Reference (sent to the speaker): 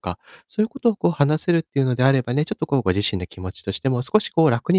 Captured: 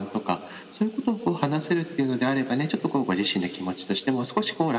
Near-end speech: none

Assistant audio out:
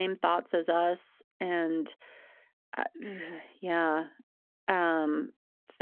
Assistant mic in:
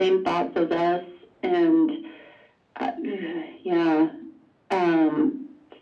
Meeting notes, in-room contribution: none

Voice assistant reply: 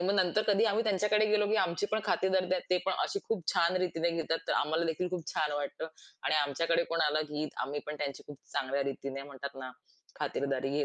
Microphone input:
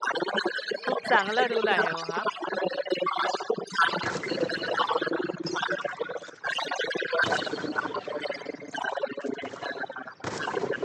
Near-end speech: present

